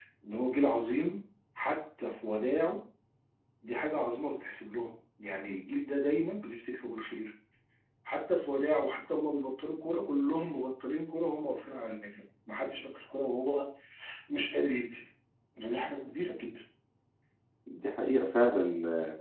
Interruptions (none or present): none